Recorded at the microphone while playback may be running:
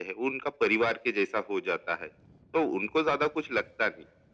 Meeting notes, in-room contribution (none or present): none